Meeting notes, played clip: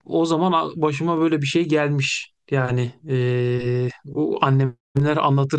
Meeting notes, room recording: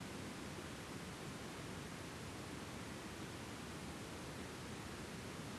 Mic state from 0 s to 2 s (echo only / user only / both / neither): neither